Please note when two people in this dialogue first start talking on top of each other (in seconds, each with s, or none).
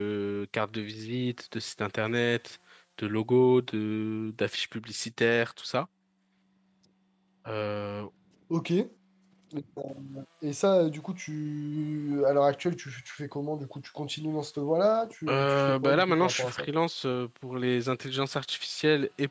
15.3 s